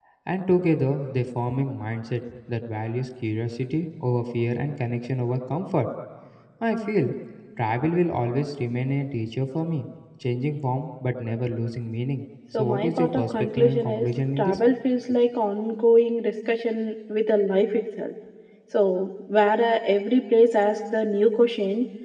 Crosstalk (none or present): present